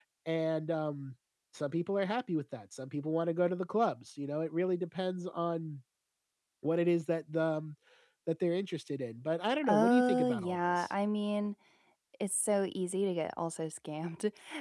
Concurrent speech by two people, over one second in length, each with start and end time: 9.7-10.9

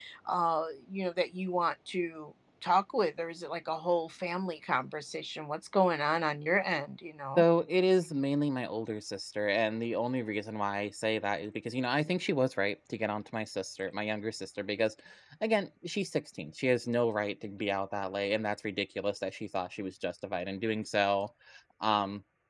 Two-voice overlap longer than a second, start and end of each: none

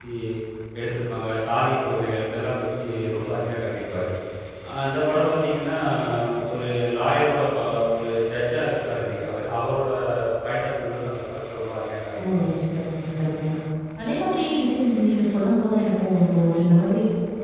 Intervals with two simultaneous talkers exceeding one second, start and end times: none

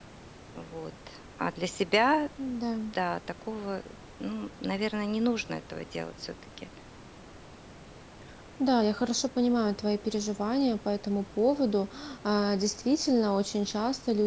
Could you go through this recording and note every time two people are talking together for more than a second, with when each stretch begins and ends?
none

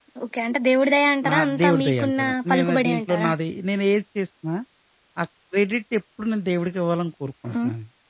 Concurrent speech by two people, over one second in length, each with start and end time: 1.3-3.3

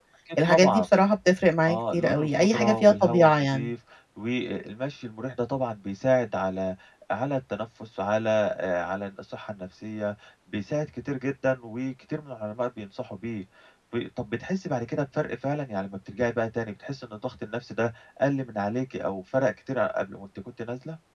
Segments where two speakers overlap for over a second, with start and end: 1.7-3.7

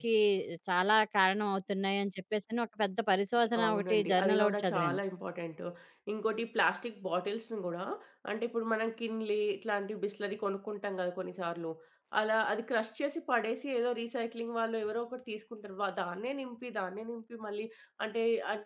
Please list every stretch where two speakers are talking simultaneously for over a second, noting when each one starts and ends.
3.7-5.0

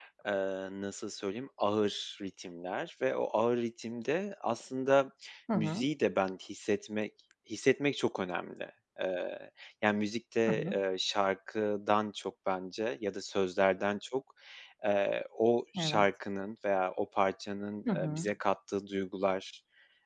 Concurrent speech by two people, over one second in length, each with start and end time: none

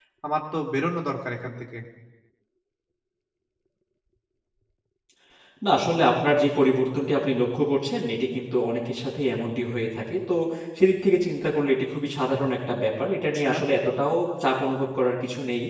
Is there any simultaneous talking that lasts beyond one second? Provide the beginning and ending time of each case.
none

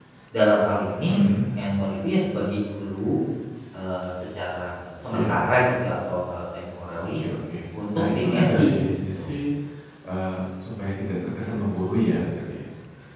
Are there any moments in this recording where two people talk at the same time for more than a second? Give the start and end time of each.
8.0-9.3

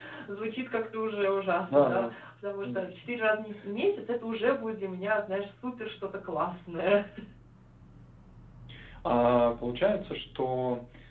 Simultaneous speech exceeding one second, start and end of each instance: none

